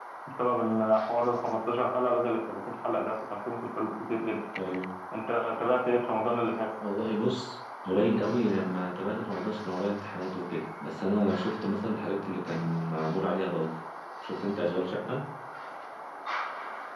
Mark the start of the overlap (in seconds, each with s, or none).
none